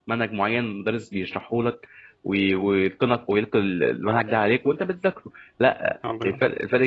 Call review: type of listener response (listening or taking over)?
listening